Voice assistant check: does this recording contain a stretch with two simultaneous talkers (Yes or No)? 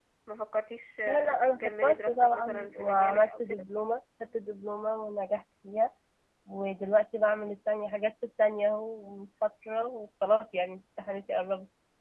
Yes